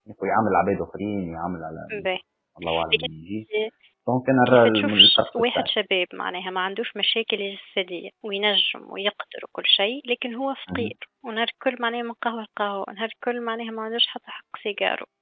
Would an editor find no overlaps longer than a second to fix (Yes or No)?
No